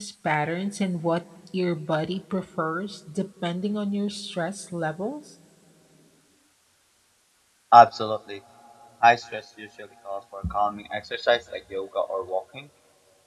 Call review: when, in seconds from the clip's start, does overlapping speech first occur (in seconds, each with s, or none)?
none